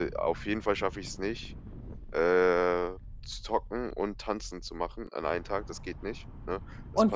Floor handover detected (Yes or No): Yes